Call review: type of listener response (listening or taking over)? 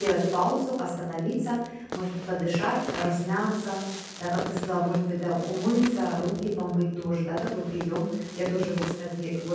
listening